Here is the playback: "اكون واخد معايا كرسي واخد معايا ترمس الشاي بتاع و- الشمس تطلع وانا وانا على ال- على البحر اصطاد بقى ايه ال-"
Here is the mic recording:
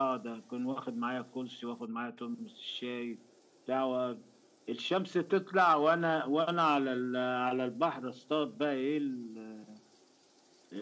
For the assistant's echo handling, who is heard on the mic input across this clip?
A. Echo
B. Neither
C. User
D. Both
A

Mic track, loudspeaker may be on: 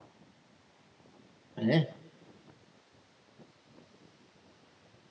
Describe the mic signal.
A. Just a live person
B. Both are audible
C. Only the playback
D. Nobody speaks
A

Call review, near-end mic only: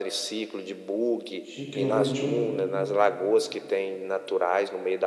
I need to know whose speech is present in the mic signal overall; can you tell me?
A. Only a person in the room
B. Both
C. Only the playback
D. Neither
B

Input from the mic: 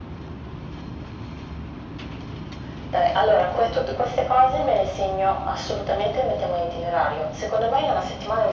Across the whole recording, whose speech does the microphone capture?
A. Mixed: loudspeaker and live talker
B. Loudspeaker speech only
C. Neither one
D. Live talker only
B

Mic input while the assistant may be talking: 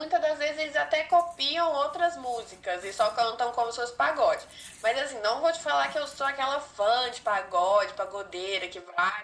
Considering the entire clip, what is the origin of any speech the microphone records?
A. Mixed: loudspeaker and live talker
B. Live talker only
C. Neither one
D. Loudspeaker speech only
D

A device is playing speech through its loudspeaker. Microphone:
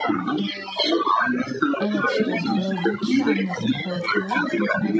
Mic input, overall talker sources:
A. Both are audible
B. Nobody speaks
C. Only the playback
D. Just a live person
A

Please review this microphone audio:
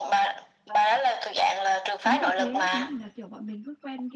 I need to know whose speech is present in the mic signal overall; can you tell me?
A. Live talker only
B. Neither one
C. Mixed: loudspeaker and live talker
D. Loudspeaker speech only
C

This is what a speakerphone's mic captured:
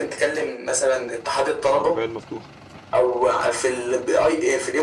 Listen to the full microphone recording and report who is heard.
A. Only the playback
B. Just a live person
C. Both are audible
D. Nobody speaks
C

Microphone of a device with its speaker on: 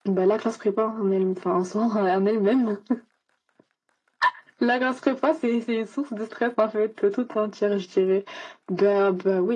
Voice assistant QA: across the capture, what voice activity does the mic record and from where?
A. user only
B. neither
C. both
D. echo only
D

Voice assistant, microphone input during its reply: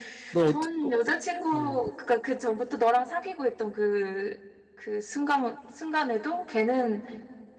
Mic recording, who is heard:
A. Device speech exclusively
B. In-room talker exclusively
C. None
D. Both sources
D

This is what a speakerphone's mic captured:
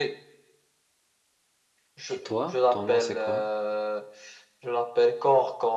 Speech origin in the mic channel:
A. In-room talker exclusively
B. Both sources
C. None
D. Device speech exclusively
B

